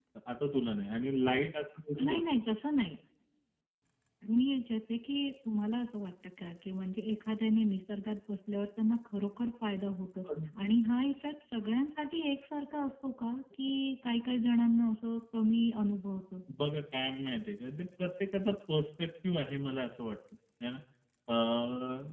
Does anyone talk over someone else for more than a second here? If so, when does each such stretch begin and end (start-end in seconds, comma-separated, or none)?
none